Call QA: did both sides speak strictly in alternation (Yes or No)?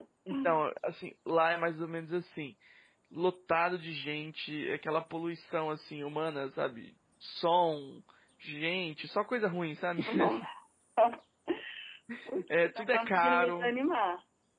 No